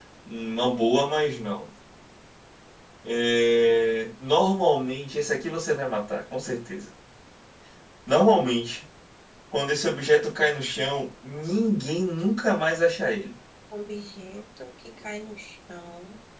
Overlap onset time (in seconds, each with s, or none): none